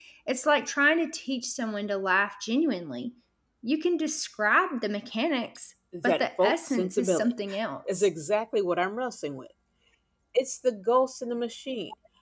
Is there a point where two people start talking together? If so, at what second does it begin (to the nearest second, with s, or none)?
6 s